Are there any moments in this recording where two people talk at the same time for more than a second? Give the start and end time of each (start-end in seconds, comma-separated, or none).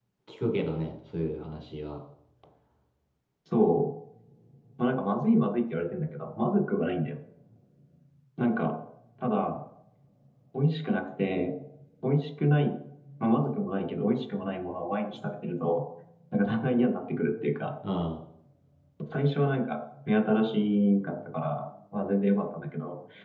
none